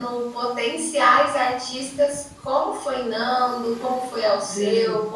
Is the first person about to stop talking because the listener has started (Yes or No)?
No